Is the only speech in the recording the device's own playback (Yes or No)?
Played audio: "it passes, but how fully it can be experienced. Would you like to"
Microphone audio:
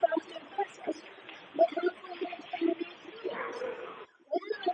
Yes